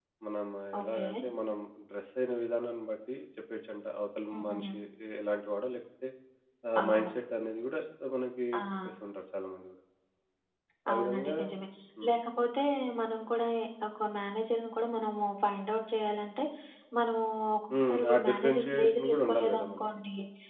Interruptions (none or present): present